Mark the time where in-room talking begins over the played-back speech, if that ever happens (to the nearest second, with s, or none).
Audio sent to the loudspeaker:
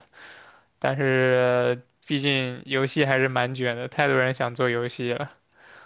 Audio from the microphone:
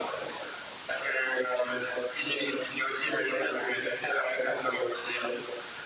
none